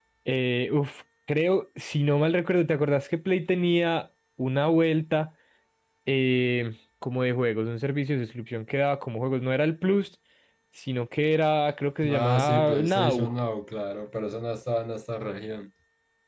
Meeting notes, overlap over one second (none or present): present